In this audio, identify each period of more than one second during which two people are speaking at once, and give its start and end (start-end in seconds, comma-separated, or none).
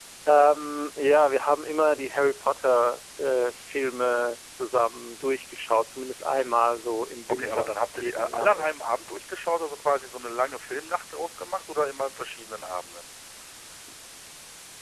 7.3-8.7